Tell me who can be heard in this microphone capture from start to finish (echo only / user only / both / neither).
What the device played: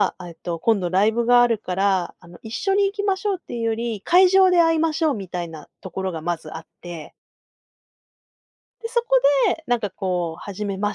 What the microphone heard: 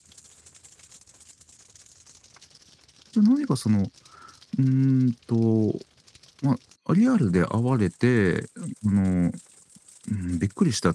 user only